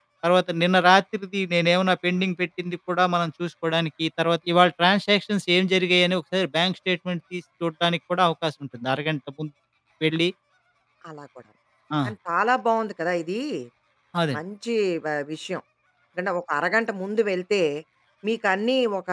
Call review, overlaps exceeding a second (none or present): none